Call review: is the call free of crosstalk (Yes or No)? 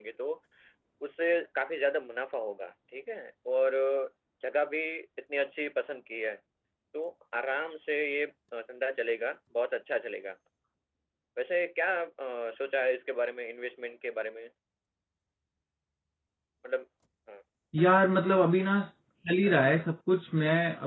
Yes